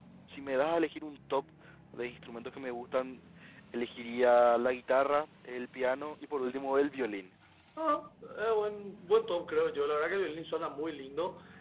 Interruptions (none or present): none